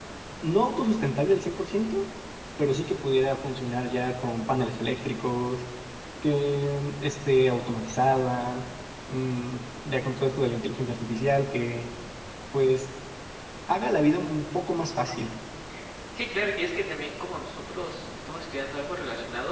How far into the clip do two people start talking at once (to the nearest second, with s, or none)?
none